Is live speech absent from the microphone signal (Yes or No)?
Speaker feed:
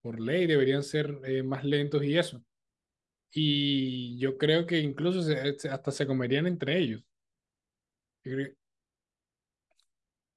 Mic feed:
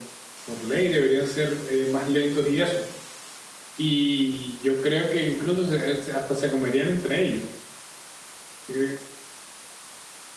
Yes